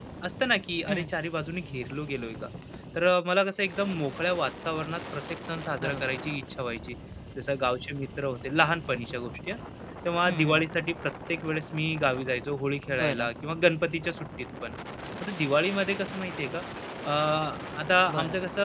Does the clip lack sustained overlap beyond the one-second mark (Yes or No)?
Yes